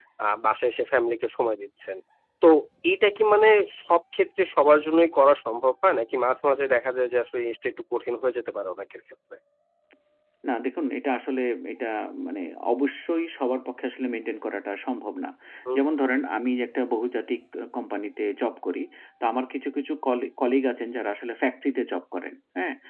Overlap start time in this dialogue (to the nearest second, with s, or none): none